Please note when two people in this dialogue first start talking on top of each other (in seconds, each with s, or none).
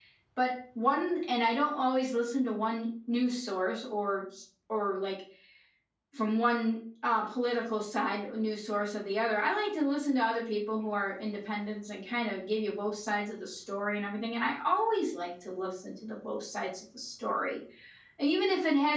none